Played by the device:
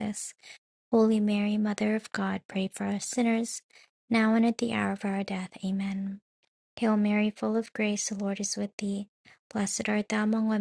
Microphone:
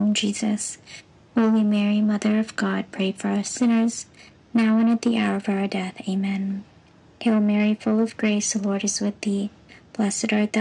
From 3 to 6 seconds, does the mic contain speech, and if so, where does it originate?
echo only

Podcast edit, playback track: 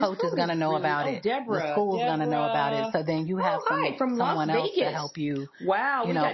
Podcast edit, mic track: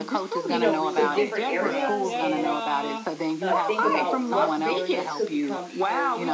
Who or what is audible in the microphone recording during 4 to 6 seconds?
both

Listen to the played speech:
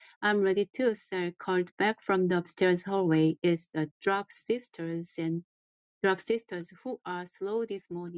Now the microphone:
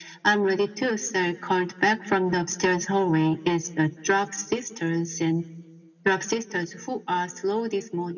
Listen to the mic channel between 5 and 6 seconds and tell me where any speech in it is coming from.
echo only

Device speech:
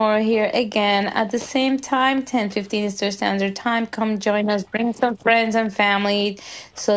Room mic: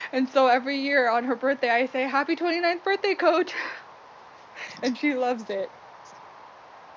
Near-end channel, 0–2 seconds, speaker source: user only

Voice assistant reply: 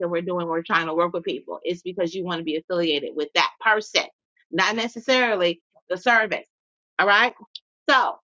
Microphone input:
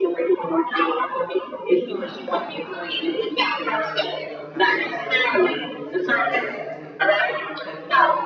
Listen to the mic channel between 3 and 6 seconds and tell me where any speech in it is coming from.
both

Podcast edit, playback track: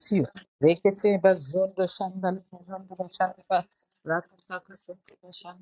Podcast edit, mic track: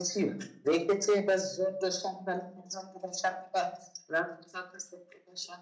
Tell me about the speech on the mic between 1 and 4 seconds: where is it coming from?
echo only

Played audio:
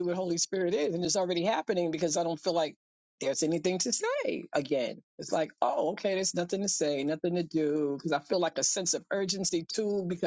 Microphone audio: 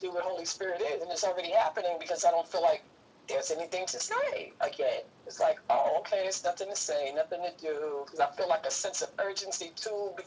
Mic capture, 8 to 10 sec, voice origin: echo only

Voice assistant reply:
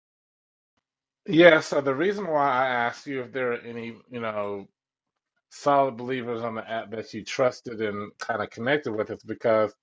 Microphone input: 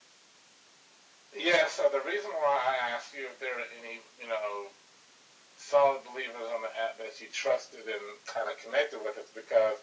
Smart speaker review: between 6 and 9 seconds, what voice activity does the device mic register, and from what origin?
echo only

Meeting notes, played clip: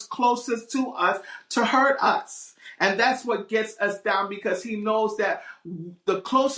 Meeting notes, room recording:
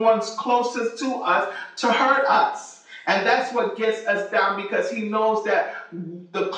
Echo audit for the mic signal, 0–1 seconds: echo only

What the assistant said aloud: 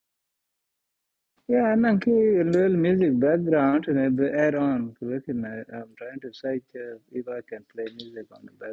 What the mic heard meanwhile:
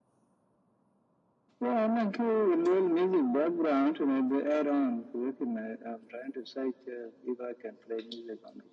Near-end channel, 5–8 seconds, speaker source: echo only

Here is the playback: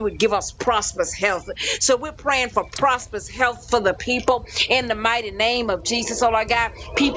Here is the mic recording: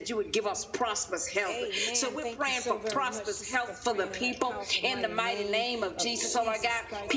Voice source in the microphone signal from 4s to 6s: both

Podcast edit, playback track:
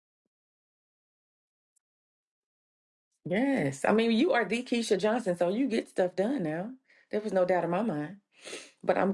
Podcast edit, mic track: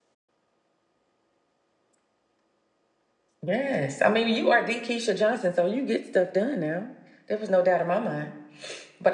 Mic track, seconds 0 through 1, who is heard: neither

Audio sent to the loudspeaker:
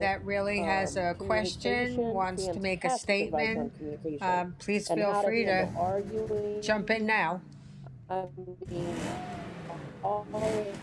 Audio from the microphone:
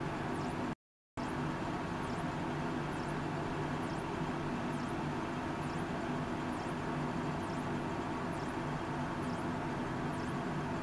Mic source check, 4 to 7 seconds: neither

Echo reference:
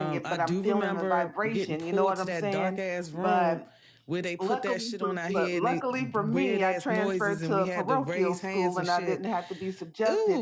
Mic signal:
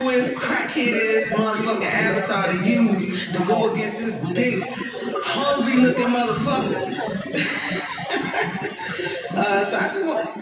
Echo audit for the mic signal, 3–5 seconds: both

